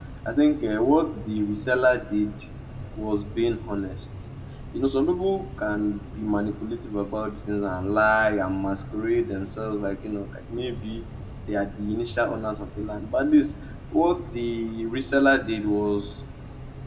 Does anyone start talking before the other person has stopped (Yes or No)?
No